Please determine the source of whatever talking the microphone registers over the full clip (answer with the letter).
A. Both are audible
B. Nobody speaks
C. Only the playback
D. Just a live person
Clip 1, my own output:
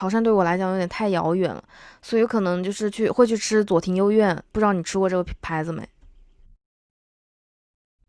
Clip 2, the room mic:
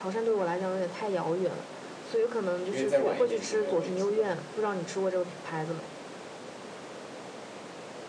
A